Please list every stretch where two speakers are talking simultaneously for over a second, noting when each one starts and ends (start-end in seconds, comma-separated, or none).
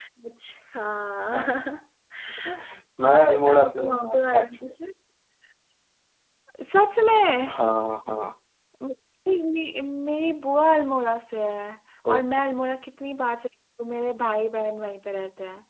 3.1-4.7